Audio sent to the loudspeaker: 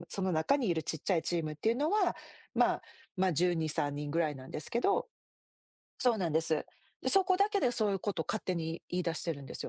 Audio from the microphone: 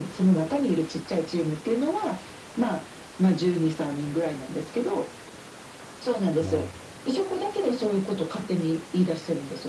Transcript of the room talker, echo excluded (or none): うん。